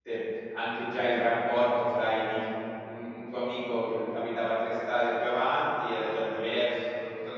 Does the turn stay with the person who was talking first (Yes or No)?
Yes